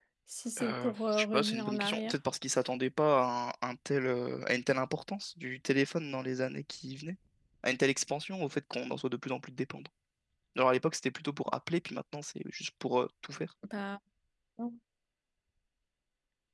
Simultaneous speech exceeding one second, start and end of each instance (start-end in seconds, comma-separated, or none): 0.6-2.1